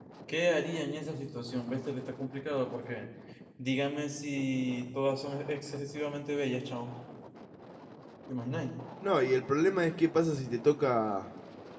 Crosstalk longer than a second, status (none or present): none